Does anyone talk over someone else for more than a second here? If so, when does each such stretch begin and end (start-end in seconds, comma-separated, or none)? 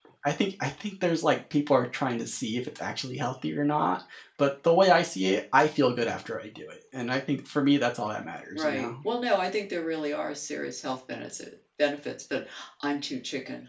none